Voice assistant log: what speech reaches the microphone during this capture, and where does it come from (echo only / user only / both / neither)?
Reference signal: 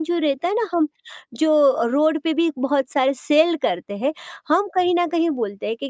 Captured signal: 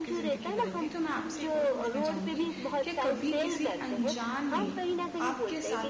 both